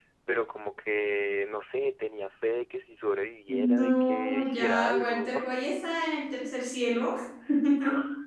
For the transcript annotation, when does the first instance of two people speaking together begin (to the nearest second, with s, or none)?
3 s